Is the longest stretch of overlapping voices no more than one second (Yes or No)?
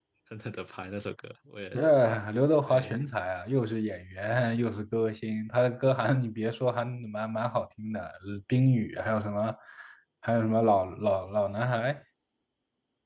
Yes